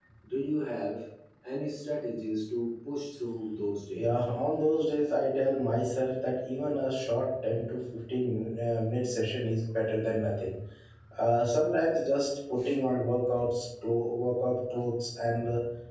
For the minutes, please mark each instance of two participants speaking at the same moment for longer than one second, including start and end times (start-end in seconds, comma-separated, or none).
none